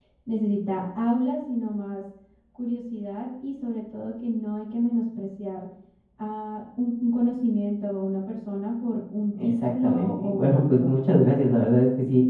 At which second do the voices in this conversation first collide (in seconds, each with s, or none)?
9.3 s